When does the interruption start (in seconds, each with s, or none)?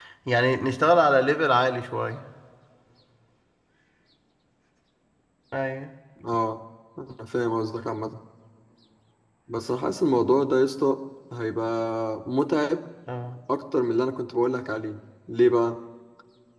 none